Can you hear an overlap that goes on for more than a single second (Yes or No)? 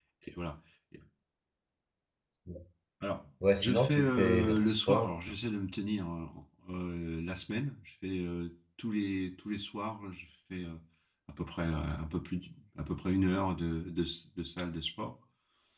Yes